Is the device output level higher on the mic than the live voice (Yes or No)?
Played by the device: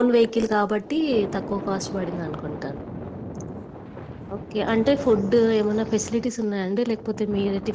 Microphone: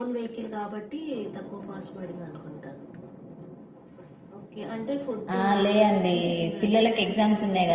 No